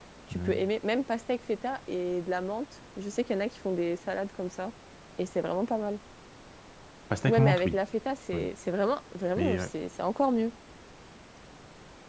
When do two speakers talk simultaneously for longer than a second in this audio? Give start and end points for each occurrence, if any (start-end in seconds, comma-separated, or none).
none